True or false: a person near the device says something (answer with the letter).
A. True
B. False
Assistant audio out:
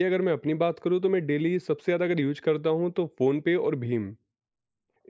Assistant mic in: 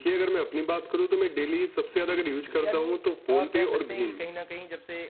A